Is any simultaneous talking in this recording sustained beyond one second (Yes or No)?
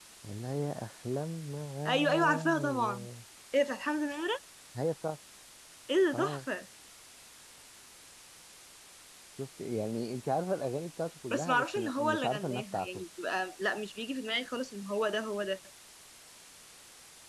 Yes